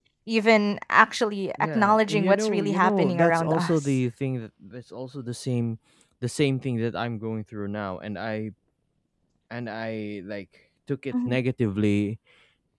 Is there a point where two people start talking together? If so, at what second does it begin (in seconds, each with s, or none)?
1.6 s